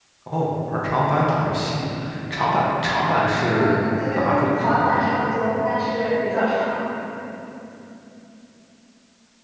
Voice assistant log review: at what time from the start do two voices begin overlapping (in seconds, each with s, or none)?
3.5 s